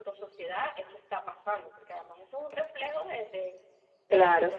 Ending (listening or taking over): listening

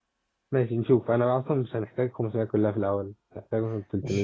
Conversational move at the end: taking over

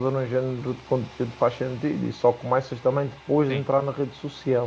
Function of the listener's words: listening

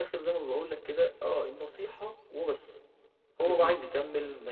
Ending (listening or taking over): listening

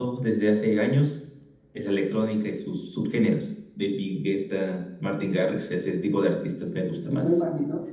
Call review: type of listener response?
taking over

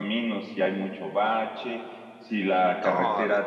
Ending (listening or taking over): listening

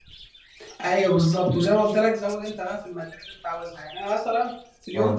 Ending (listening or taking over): listening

